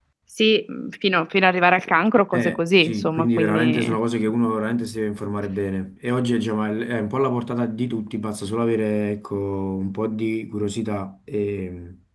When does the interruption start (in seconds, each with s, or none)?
2.3 s